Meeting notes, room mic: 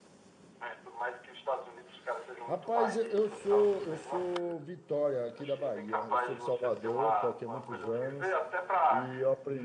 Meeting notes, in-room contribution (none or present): present